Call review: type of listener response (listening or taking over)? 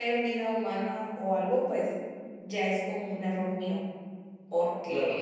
listening